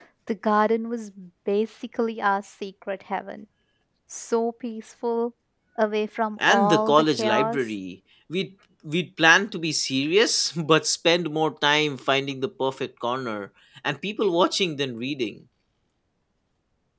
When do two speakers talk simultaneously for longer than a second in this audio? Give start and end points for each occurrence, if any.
6.5-7.7

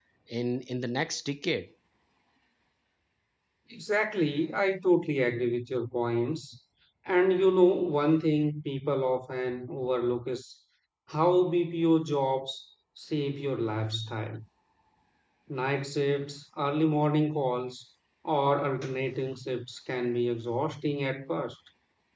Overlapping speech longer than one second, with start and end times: none

